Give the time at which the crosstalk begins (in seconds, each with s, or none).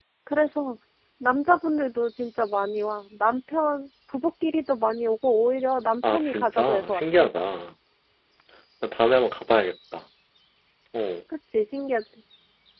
6.0 s